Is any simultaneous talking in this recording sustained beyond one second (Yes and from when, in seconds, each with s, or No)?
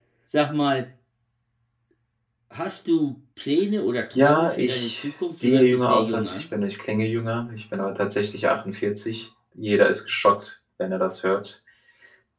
Yes, from 4.2 s